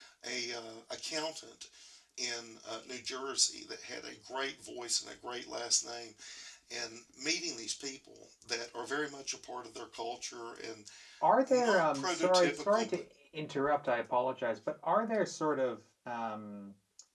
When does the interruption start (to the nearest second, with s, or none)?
11 s